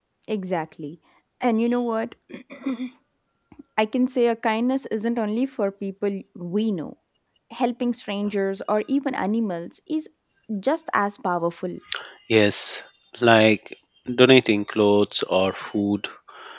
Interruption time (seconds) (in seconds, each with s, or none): none